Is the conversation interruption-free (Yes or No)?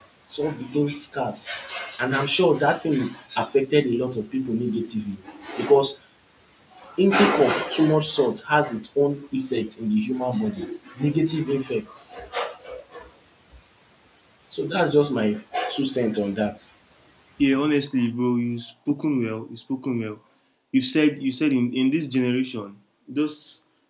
Yes